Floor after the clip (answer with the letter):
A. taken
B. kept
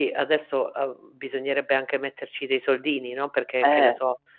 B